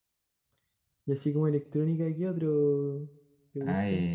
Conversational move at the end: taking over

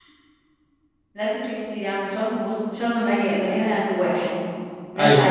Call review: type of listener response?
listening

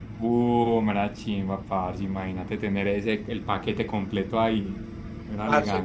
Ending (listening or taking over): taking over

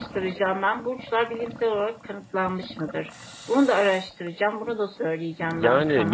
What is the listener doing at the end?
taking over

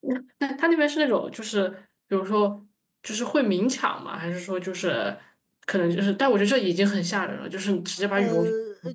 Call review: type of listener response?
taking over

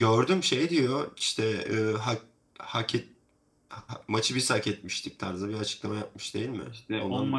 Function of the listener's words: taking over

